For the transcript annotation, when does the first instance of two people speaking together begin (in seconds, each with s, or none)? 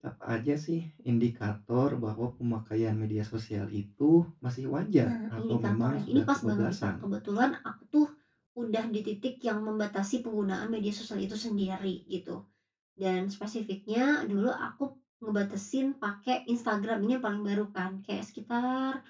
5.0 s